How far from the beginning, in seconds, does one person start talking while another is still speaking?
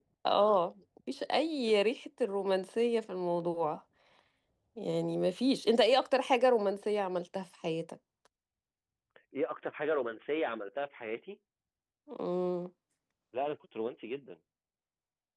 none

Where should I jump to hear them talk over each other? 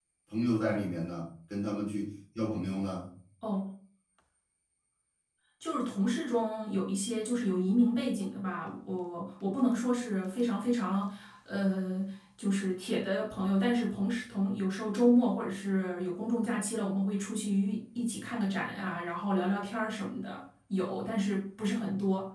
none

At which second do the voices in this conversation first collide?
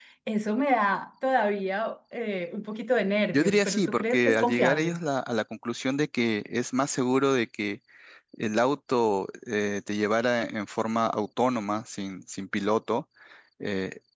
3.3 s

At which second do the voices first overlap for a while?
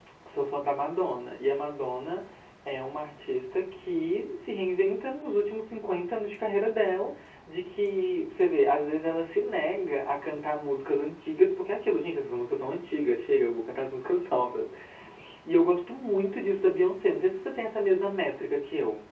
none

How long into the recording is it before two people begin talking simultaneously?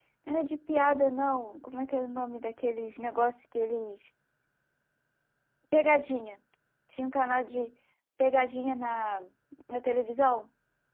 none

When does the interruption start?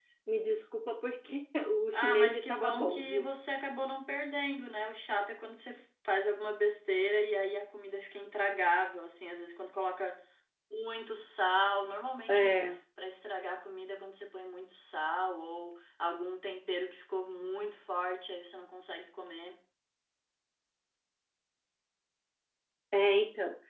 1.9 s

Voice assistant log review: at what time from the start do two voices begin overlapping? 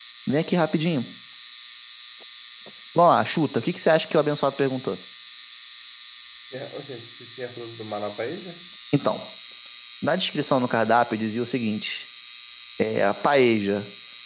none

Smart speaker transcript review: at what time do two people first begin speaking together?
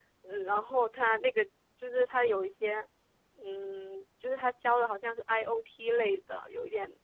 none

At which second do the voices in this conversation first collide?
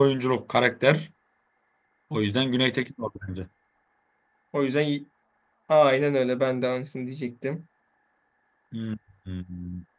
none

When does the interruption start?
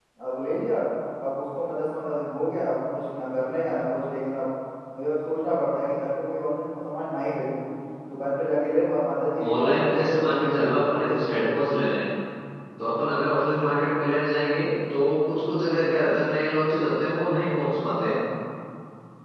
9.4 s

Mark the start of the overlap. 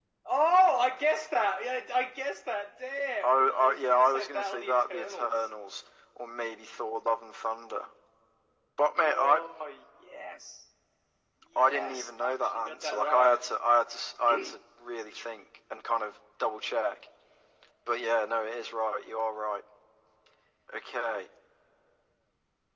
3.2 s

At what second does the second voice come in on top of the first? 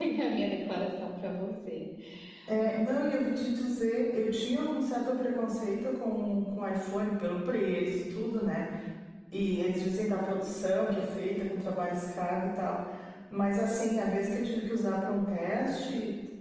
none

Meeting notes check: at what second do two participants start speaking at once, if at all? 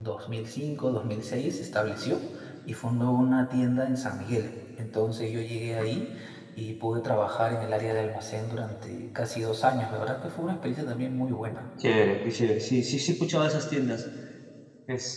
none

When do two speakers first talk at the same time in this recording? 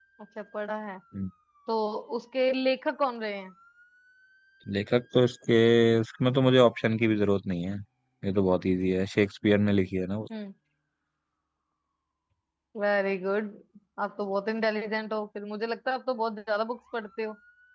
none

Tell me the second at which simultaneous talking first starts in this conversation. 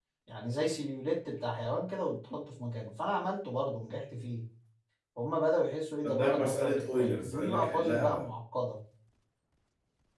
6.0 s

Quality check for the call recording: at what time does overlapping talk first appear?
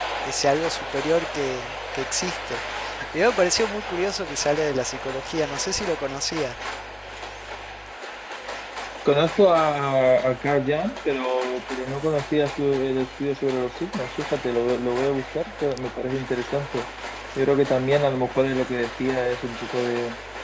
none

